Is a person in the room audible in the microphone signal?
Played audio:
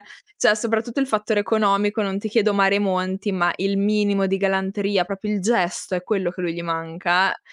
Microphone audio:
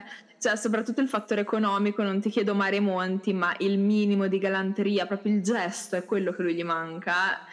No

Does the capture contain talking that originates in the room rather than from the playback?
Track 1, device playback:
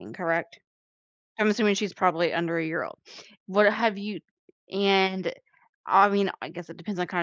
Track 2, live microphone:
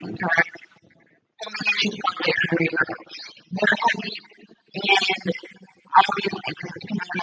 No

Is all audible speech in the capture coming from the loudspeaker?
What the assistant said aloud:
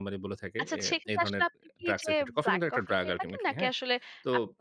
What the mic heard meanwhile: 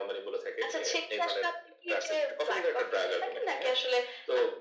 Yes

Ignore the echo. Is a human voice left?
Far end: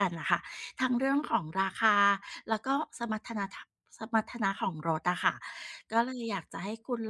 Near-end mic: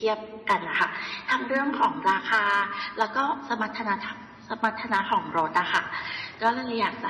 No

